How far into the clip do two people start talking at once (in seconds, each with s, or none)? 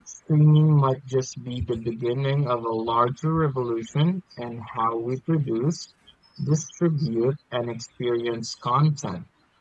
none